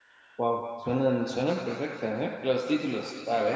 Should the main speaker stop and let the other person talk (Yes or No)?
Yes